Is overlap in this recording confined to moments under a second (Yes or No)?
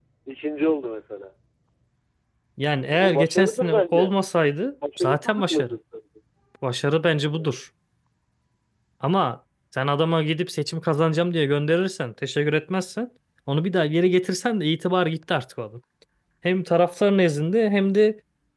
No